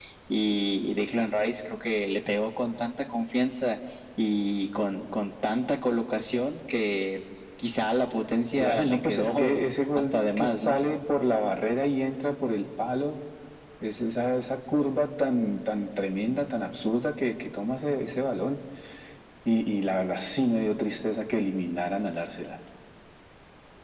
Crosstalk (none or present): present